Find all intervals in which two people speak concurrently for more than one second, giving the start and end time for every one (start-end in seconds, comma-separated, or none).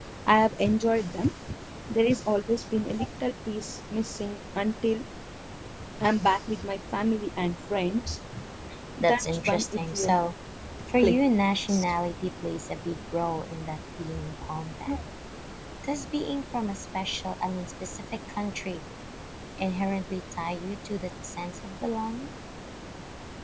9.0-10.2